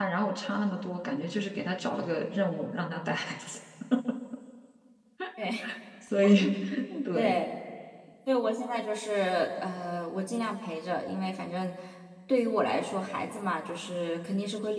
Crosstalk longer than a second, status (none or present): none